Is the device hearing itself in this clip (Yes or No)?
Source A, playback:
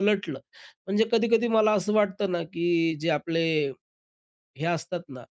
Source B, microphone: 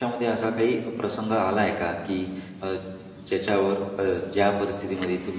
No